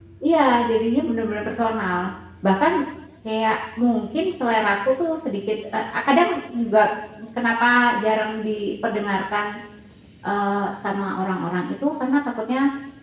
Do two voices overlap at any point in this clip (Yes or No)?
No